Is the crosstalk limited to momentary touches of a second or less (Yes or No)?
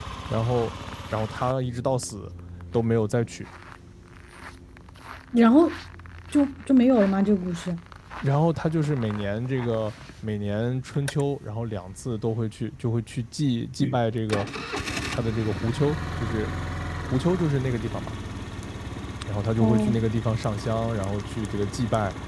Yes